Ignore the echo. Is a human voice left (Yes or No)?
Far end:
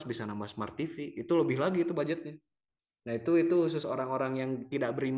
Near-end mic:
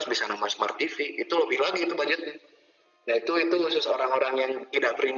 No